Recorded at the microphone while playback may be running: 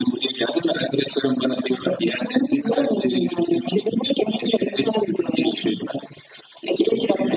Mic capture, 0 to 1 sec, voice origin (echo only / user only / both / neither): echo only